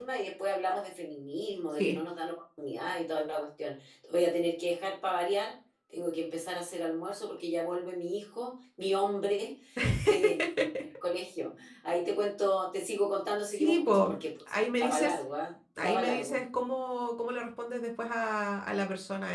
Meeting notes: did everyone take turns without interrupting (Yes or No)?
No